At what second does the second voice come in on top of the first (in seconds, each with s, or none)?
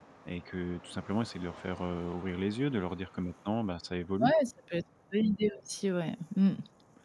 none